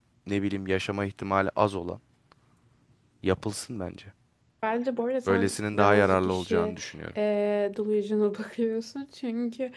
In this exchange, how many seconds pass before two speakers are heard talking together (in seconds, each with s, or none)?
5.3 s